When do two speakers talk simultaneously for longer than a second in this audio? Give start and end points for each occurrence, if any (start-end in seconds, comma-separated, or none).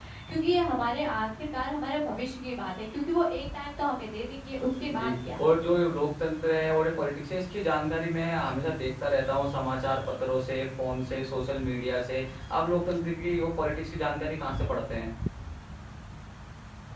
none